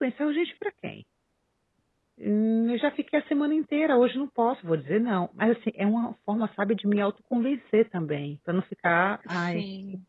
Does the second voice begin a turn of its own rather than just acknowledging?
No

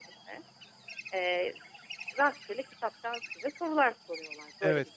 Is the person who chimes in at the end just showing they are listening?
No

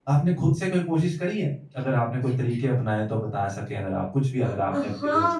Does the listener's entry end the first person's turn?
Yes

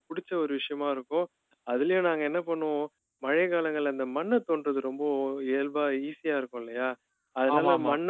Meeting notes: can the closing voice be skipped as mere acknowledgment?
Yes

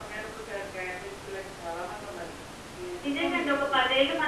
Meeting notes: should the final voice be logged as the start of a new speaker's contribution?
Yes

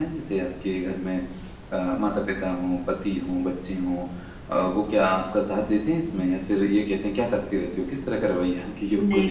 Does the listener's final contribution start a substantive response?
Yes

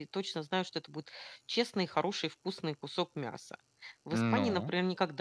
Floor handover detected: No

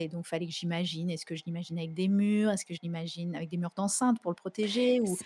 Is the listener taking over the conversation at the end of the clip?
Yes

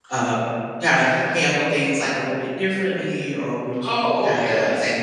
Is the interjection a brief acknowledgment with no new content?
No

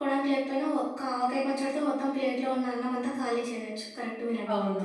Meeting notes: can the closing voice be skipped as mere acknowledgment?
No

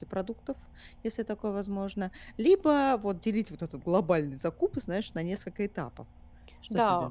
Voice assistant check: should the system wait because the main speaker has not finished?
No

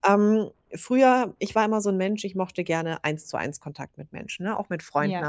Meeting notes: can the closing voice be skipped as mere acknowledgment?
Yes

